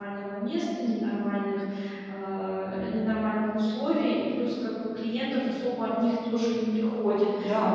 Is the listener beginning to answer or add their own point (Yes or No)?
No